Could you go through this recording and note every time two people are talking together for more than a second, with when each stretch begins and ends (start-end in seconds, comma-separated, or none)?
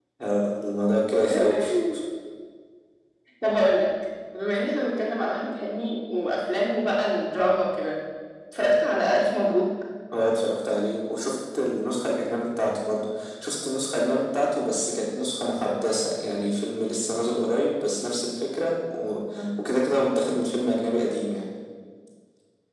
none